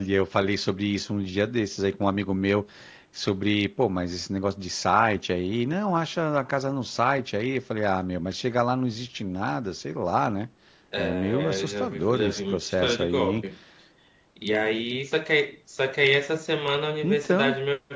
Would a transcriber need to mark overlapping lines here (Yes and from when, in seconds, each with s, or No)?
Yes, from 11.0 s